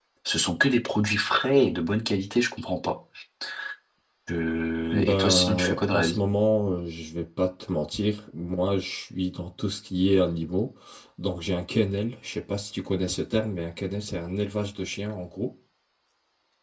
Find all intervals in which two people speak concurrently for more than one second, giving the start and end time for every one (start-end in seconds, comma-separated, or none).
4.9-6.2